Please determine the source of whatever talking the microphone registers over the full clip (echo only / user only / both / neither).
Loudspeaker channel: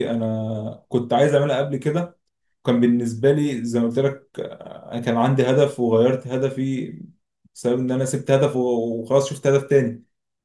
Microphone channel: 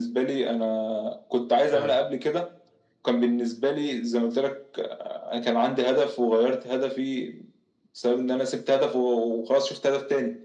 both